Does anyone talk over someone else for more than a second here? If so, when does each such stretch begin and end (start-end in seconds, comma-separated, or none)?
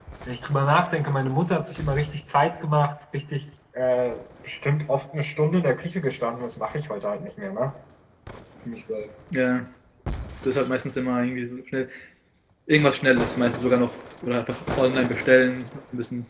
none